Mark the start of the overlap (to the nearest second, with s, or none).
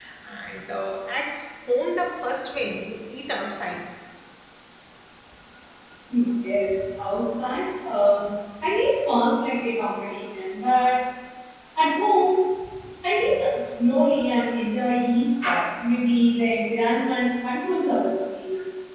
none